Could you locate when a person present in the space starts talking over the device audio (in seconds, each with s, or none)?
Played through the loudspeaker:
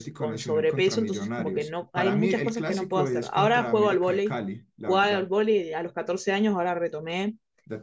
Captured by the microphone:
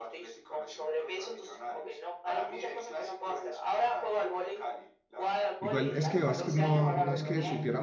5.6 s